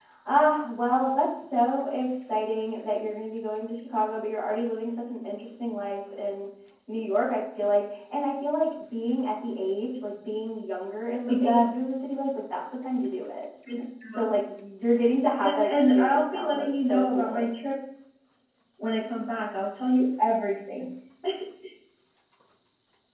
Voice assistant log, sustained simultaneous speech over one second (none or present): present